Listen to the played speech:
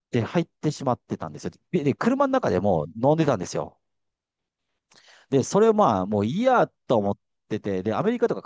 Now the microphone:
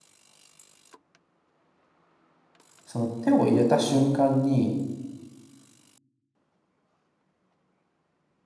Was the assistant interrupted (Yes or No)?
Yes